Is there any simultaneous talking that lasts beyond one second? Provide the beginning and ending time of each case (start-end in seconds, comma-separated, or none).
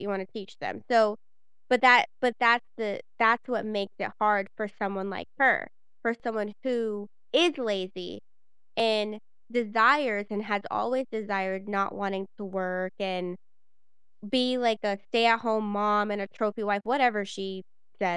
none